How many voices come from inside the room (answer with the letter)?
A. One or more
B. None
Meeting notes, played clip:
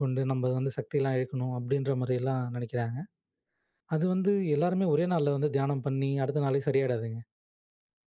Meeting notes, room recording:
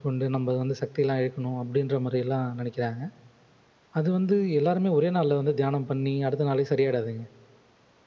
B